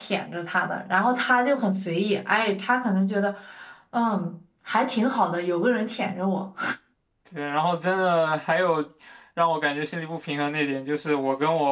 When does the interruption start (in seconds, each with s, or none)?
none